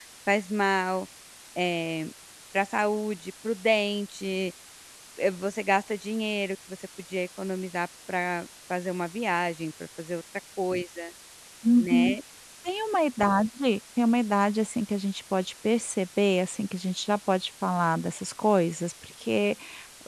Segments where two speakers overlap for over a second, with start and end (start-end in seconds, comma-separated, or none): none